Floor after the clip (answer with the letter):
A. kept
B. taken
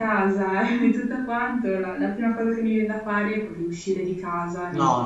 B